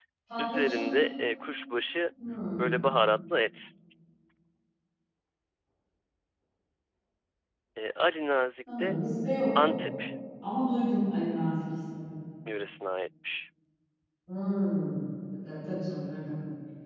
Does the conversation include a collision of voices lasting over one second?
No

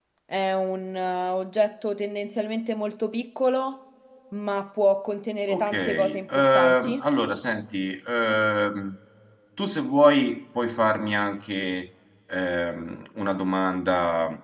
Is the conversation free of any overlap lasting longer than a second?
No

